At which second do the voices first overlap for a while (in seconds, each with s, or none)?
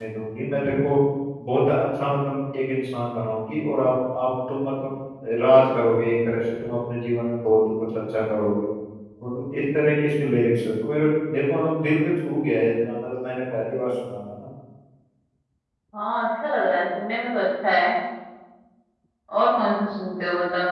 none